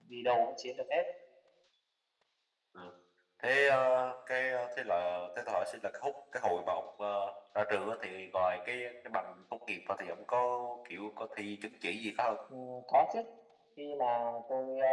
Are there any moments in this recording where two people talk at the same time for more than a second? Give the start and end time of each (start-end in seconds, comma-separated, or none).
none